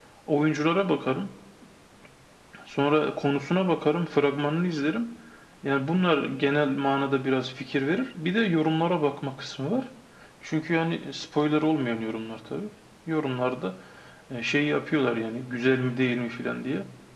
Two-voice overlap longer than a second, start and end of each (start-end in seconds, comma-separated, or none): none